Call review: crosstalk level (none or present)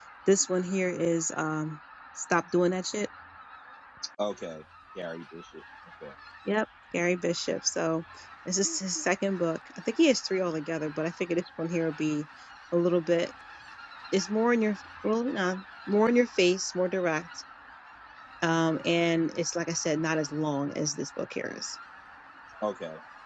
none